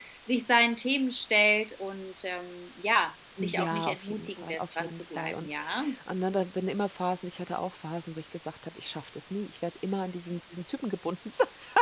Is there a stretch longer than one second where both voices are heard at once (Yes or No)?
Yes